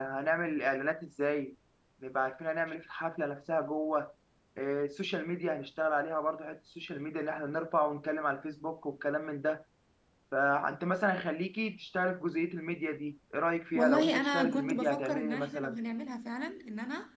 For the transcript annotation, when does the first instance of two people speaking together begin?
13.7 s

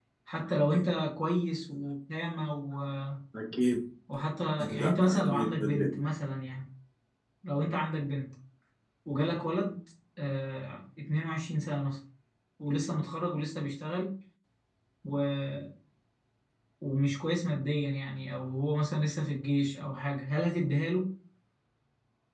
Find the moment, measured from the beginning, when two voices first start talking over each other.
4.7 s

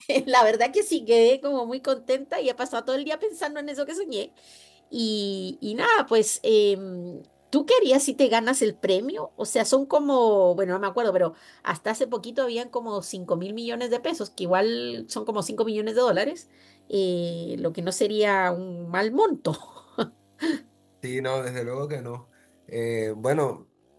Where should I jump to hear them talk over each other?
none

